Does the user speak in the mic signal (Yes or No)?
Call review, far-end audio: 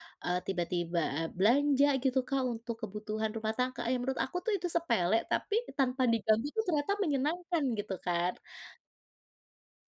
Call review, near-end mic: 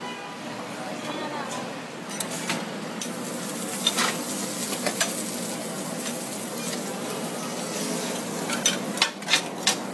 No